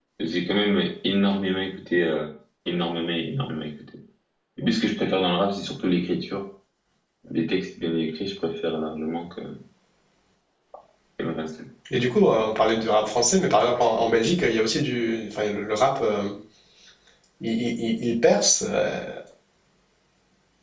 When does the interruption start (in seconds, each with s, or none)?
none